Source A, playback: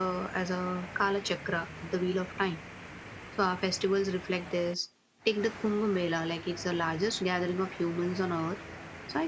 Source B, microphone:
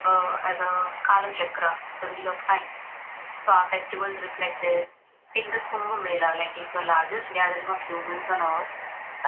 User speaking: No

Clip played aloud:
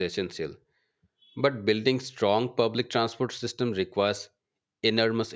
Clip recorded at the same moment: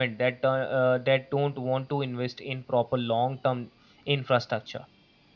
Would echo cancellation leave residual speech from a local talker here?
Yes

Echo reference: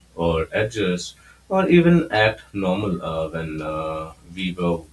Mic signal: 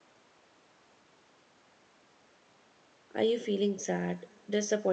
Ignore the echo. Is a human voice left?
Yes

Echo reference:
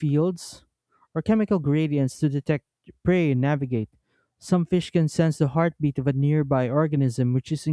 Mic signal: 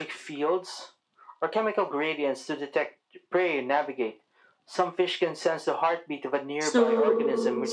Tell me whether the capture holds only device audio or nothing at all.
No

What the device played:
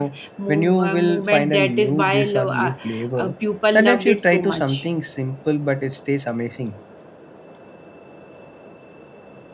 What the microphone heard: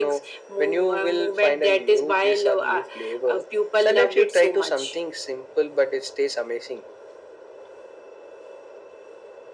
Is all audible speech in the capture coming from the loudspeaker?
Yes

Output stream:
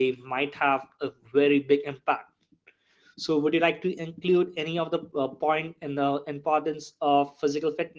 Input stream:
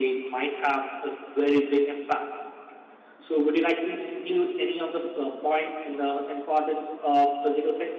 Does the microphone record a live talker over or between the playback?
No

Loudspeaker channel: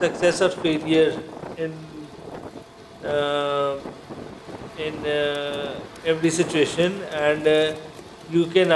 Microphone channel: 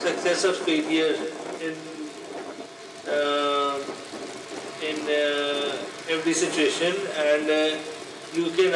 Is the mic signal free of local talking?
Yes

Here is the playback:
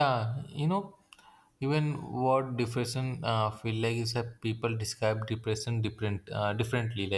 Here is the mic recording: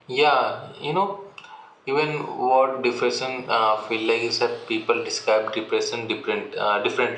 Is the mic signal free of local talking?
Yes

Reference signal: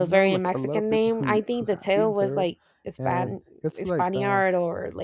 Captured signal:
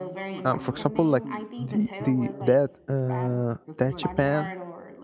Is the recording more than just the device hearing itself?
Yes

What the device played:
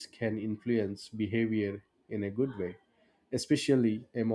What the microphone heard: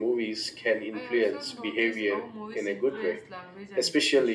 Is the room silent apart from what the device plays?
No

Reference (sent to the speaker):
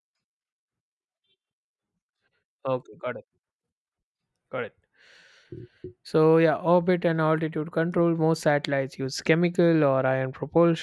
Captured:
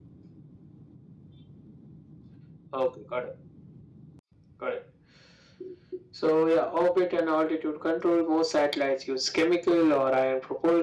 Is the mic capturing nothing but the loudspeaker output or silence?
Yes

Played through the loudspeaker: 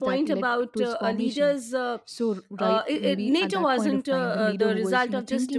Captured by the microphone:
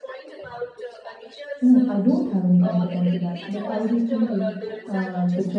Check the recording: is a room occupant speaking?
Yes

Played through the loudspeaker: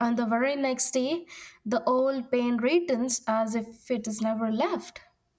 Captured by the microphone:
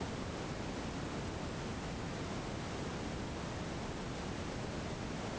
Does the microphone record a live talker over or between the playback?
No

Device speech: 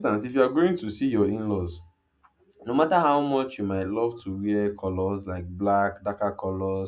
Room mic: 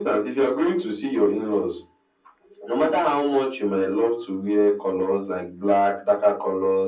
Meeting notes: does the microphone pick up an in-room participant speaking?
No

